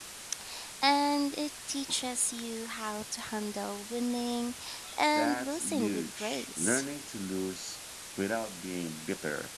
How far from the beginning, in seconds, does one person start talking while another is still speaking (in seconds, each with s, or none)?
5.2 s